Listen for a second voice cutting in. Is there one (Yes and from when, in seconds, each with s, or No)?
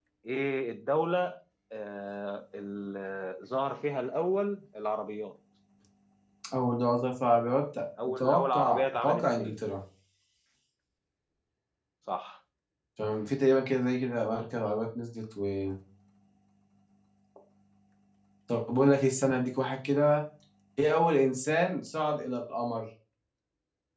Yes, from 8.2 s